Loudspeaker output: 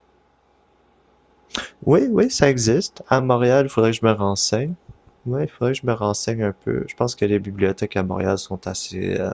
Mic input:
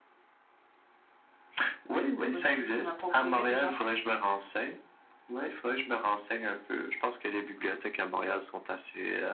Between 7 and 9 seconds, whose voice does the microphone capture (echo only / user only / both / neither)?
echo only